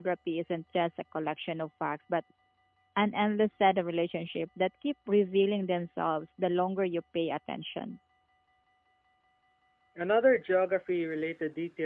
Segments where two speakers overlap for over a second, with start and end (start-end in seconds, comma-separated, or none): none